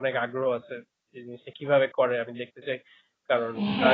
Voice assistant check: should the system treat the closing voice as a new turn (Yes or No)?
Yes